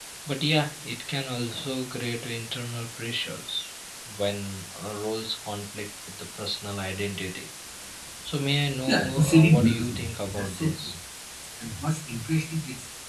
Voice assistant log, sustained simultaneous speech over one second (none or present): present